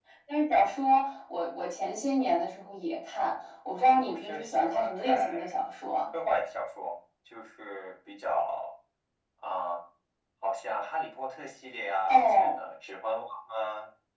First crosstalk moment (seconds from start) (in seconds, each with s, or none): 3.7 s